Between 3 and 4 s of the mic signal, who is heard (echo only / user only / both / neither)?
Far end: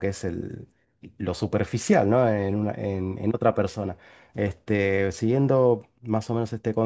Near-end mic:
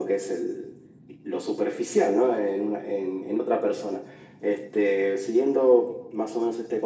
echo only